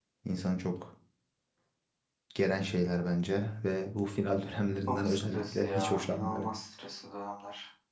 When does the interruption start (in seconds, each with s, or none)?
4.9 s